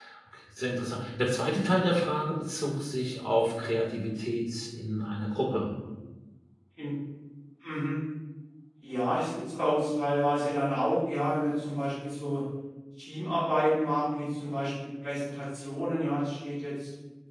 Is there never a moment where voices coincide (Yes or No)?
Yes